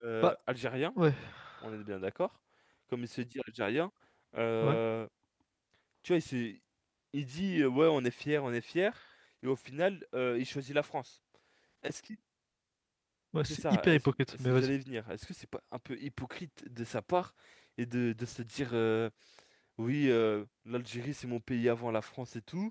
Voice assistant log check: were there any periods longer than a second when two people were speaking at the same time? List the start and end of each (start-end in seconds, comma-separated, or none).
13.5-14.7